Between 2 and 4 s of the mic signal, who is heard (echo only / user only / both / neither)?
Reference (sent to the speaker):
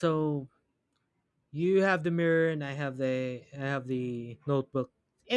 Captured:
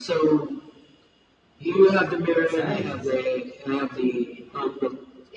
both